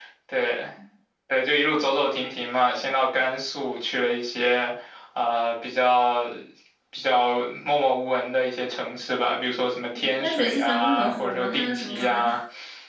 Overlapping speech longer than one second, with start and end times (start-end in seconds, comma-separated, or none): 10.2-12.4